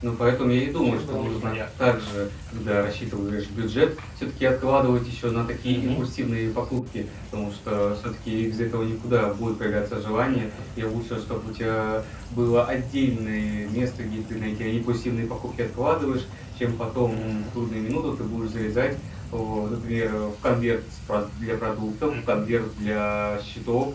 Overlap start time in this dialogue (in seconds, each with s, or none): 0.7 s